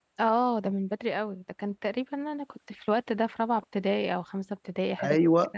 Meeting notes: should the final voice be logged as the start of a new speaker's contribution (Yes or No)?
Yes